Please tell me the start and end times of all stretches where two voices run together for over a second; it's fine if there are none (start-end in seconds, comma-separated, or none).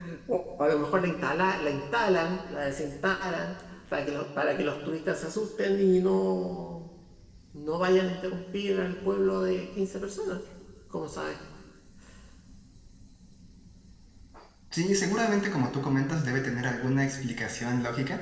none